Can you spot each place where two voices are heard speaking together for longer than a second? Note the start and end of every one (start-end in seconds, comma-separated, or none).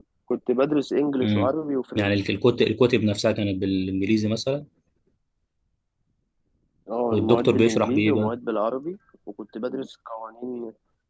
7.1-8.3